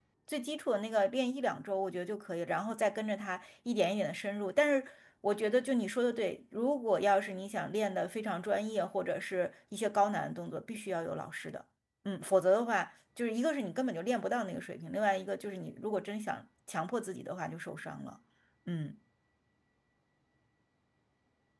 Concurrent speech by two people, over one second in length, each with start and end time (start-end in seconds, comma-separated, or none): none